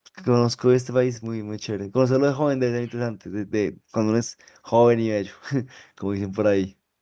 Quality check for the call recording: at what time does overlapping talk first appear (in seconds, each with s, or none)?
none